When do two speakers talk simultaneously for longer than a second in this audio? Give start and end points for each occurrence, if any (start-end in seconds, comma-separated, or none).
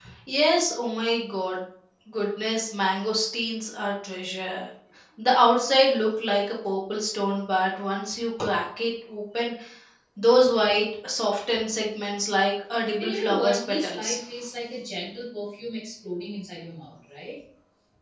13.0-14.2